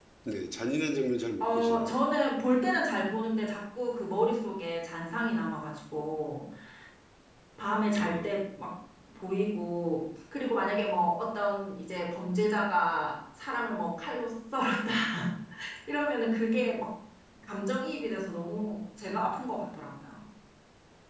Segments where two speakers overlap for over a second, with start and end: none

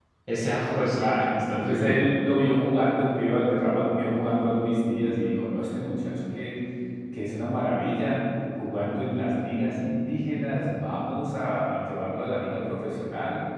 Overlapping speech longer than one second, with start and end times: 0.7-2.1

